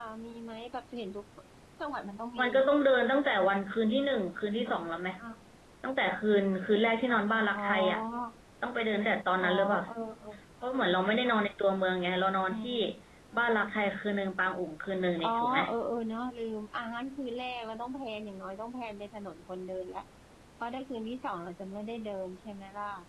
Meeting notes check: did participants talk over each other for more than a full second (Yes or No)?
No